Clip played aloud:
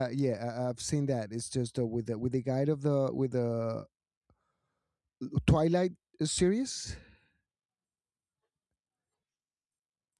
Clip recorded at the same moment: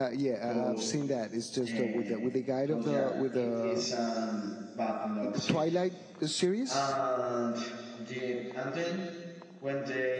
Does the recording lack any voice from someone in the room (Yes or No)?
No